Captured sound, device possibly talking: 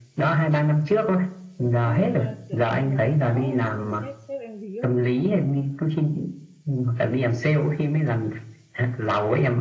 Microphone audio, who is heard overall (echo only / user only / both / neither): both